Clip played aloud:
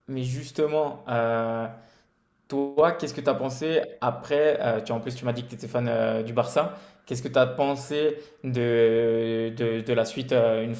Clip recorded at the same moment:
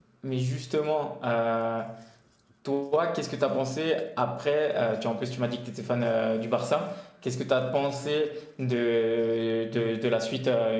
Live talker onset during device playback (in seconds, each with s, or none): none